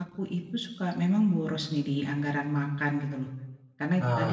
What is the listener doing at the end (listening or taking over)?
listening